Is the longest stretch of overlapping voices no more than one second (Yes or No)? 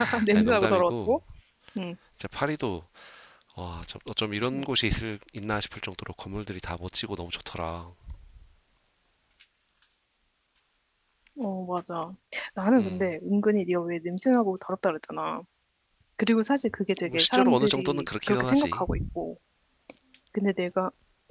No